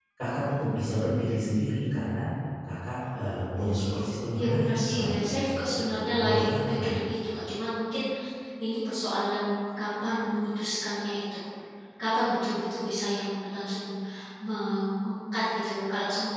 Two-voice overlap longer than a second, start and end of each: 4.3-7.0

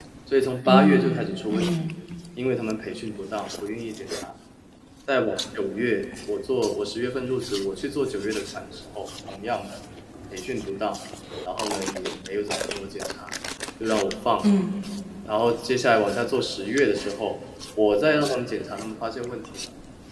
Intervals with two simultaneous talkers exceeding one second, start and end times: 0.7-1.9

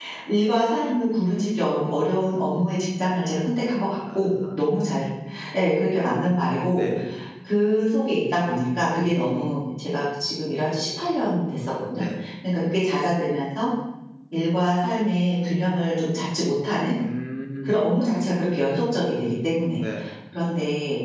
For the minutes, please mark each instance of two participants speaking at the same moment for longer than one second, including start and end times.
none

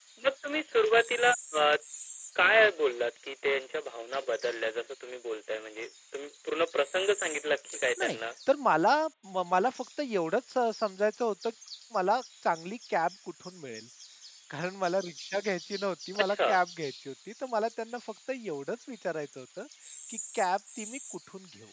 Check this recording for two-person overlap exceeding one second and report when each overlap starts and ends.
none

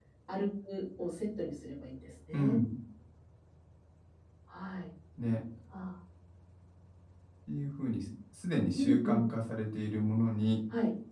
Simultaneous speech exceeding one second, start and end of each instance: none

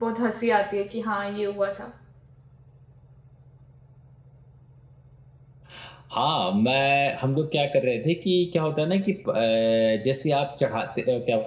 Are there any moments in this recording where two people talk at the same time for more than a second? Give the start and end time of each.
none

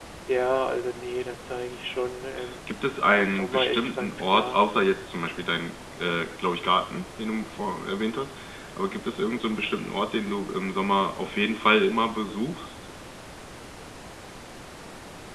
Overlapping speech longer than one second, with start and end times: 3.1-4.6

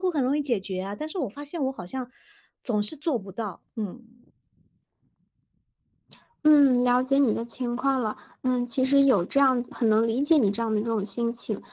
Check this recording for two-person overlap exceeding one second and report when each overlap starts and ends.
none

